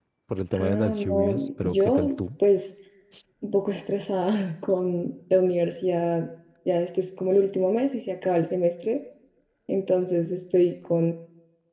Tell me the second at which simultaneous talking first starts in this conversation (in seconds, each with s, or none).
0.5 s